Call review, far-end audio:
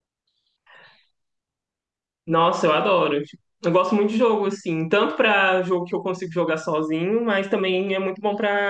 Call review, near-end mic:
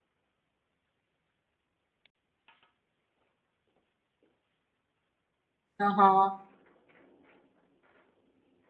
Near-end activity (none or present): present